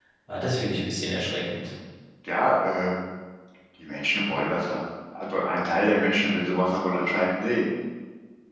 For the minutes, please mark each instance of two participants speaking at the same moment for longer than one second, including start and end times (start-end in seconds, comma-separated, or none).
none